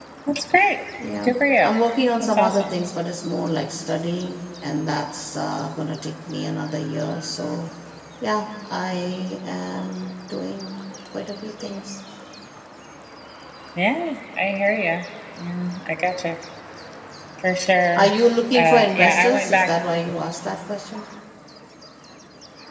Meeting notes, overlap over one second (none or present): present